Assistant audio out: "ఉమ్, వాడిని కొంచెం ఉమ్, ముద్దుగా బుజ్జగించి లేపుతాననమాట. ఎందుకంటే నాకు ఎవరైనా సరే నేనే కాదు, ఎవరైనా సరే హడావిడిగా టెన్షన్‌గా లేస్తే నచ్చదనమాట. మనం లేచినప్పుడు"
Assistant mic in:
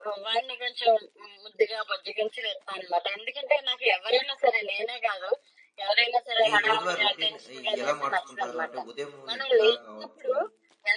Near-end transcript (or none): మీ రోజువారీ రొటీన్ ఆహ్, ఎలా మార్చుకుంటారు? అంటే ఉదయం నిద్ర కావచ్చు,